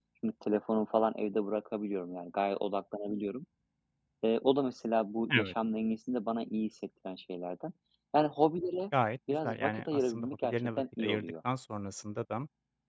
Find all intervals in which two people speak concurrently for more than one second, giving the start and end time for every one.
9.4-11.3

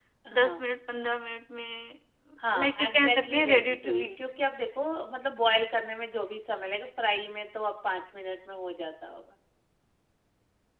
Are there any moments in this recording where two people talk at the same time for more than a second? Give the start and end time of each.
2.6-4.2

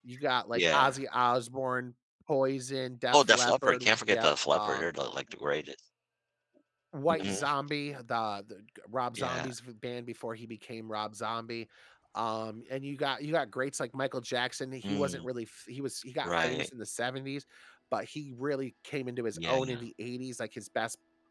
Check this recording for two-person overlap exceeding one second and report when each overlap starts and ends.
3.1-4.9

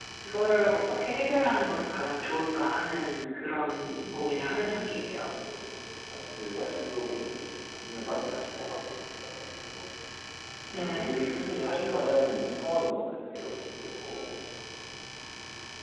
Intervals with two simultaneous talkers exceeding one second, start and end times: none

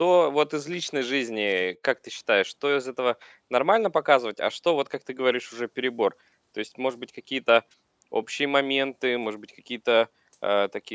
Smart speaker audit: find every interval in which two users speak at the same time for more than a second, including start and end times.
none

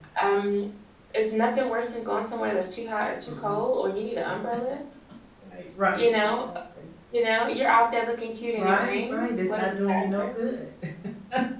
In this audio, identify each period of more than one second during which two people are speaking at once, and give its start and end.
8.6-10.3

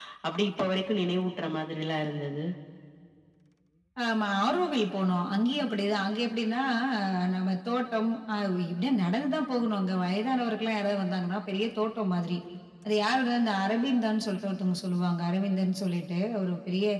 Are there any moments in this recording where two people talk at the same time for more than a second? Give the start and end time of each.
none

